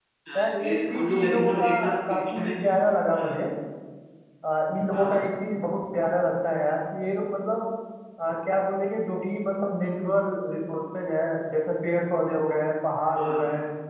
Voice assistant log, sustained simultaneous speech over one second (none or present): present